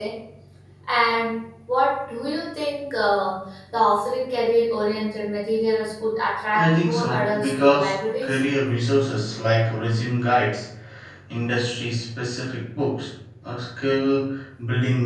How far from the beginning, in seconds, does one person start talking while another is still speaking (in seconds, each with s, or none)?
6.5 s